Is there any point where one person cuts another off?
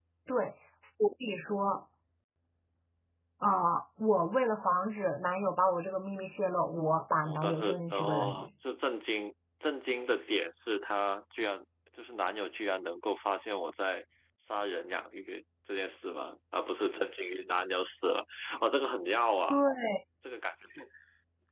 Yes, from 7.2 s

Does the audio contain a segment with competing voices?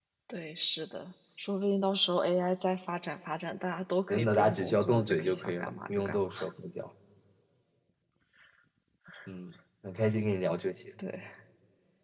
Yes, from 4.1 s

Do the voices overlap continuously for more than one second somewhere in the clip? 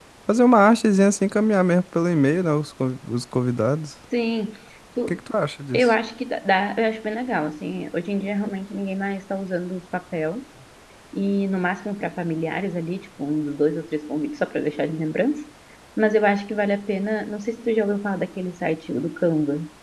No

